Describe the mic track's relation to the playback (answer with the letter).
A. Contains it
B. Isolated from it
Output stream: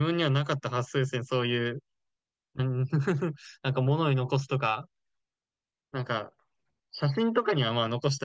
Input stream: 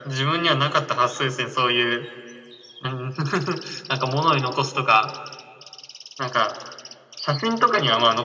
A